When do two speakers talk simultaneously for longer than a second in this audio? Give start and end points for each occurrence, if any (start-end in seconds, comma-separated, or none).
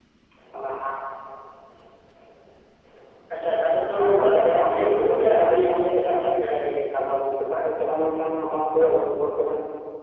4.0-6.3